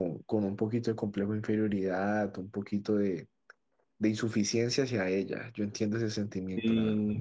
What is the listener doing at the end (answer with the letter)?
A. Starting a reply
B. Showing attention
A